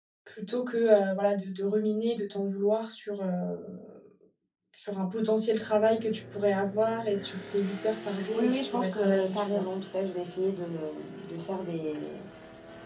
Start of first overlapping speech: 8.3 s

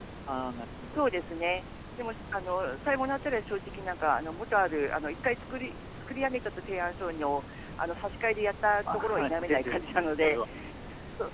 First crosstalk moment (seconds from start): 8.9 s

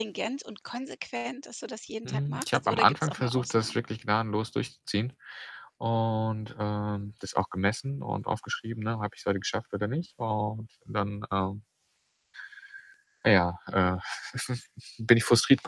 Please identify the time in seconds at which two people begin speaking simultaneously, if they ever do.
2.0 s

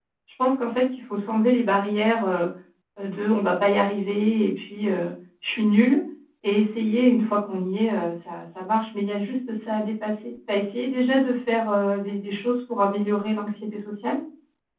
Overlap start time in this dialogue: none

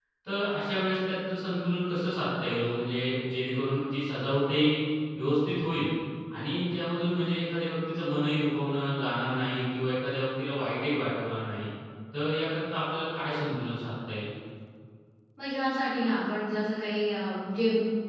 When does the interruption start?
none

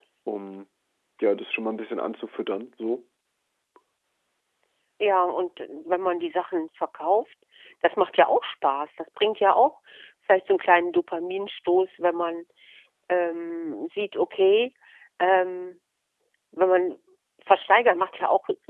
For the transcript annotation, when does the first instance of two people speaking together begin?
none

